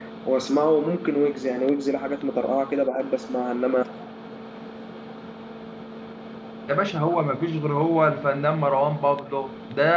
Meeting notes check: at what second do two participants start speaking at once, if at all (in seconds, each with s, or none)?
none